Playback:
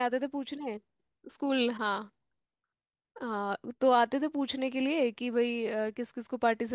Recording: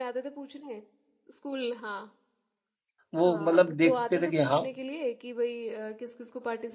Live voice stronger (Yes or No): Yes